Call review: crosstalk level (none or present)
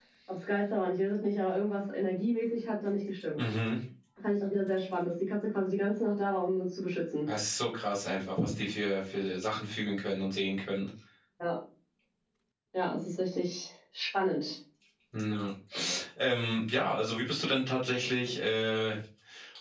none